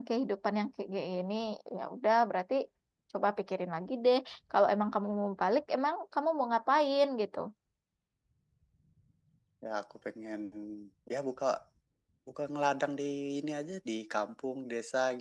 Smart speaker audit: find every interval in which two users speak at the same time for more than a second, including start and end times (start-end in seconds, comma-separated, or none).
none